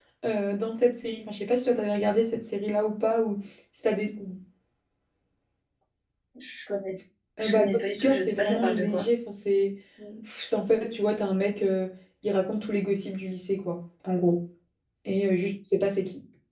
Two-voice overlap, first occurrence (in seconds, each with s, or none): 7.4 s